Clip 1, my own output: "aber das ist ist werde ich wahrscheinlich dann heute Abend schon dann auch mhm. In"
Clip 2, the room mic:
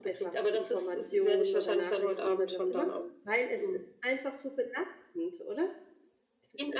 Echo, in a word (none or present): present